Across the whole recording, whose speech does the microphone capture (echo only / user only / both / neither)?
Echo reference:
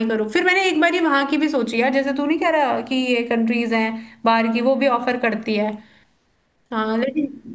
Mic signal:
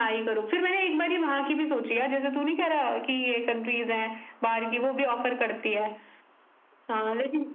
echo only